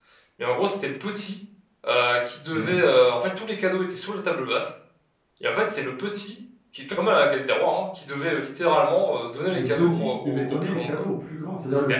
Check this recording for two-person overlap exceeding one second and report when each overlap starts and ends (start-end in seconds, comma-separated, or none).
9.5-11.0